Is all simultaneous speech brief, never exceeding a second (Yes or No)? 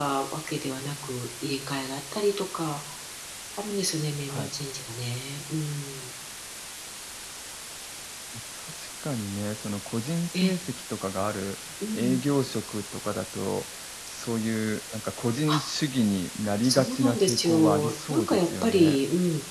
No